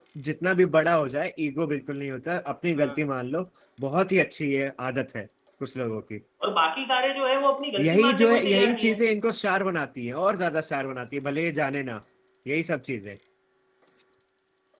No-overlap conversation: No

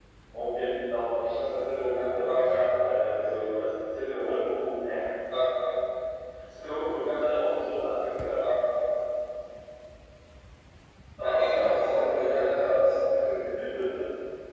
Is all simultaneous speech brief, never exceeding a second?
No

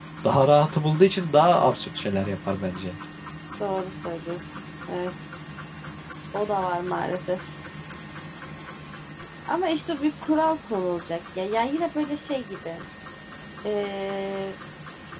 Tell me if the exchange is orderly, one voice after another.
Yes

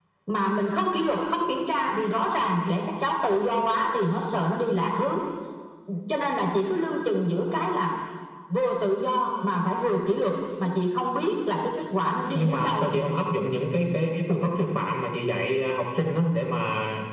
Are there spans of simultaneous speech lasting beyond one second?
No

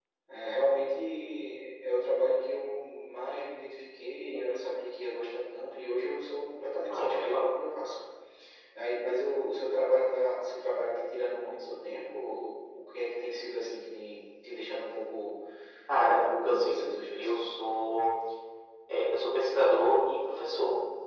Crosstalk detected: Yes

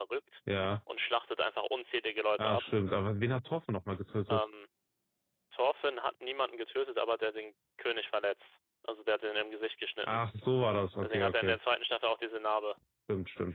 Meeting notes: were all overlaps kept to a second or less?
Yes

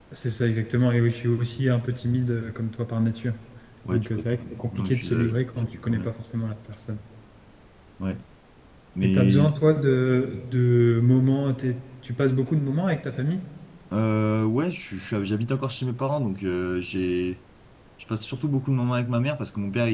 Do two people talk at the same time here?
Yes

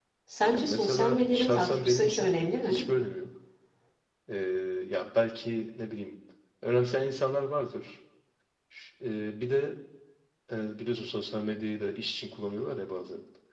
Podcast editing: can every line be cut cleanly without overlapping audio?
No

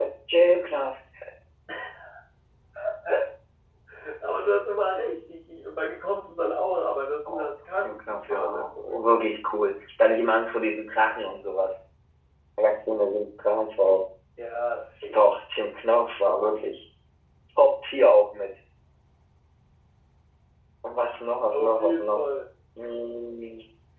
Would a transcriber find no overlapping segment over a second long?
No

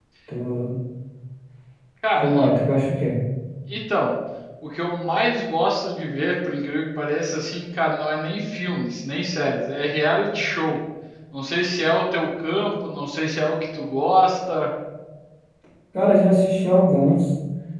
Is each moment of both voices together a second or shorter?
Yes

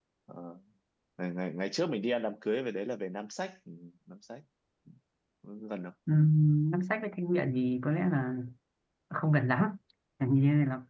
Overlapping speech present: No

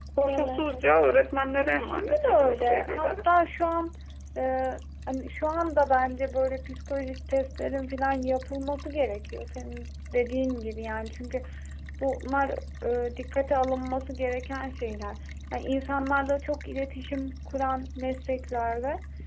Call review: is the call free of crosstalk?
No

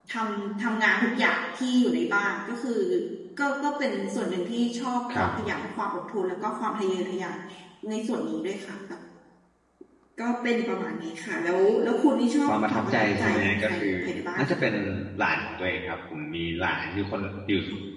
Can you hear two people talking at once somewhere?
Yes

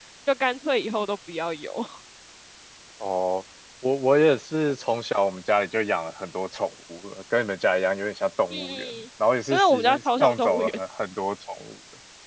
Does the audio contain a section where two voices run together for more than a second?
Yes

